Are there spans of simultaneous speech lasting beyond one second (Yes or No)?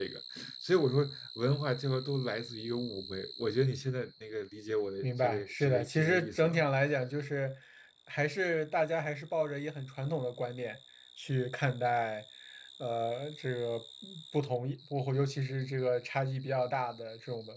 Yes